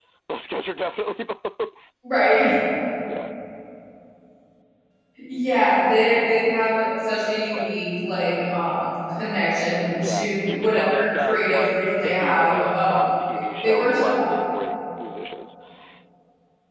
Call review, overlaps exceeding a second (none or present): present